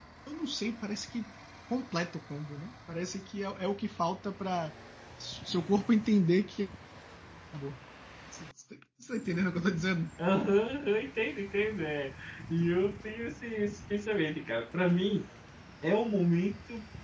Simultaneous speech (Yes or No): No